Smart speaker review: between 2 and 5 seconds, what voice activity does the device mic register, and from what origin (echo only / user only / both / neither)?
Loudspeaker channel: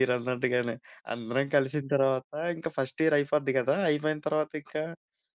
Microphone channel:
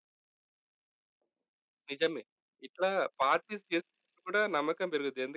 user only